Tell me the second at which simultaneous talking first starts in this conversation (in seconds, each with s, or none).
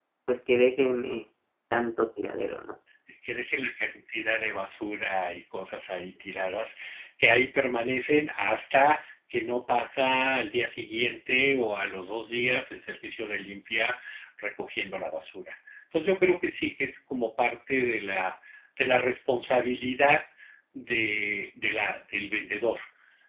none